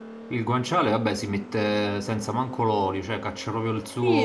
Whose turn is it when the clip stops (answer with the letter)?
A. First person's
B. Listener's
B